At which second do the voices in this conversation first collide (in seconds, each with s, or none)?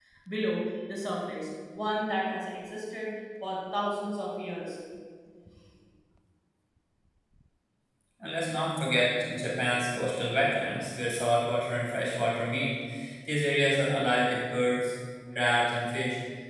none